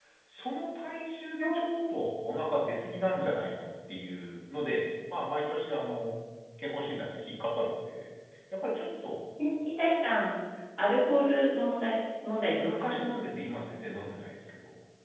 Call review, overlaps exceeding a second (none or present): none